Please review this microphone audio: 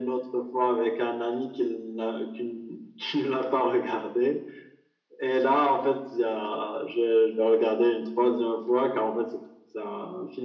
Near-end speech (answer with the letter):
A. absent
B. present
A